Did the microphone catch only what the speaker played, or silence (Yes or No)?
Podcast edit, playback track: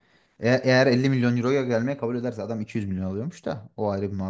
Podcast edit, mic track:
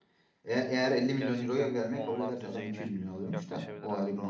No